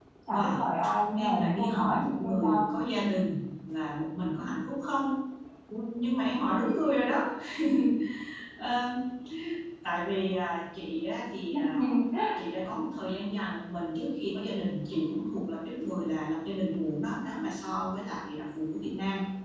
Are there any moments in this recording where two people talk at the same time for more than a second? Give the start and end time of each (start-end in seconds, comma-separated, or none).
1.2-2.7